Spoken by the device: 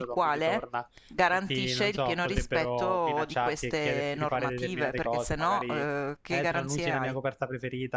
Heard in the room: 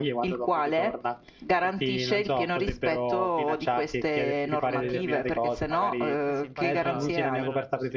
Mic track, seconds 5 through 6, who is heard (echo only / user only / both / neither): both